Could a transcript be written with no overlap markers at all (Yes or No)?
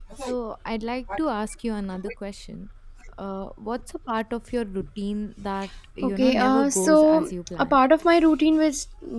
No